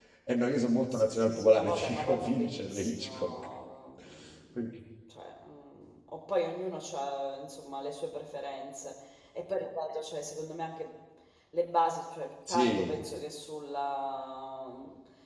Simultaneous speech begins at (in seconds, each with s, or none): 0.9 s